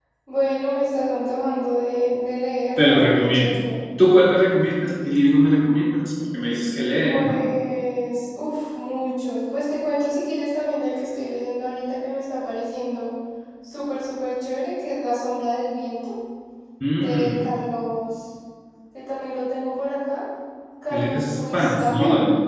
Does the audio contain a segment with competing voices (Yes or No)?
Yes